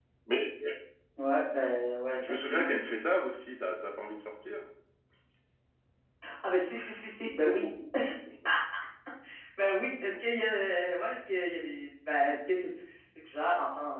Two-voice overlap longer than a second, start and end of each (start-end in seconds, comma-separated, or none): none